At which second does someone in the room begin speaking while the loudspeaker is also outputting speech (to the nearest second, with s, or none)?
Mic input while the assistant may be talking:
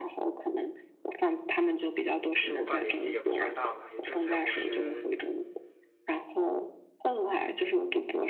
2 s